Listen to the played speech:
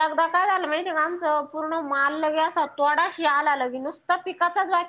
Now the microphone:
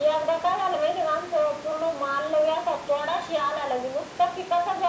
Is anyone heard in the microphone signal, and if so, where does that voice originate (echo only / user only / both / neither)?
echo only